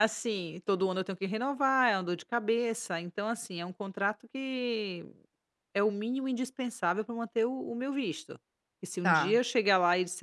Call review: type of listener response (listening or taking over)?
listening